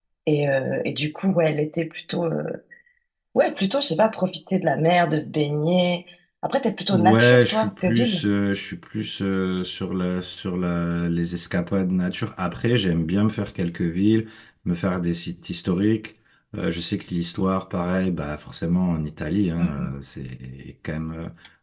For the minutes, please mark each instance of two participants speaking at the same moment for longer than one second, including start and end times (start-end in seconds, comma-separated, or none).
6.9-8.2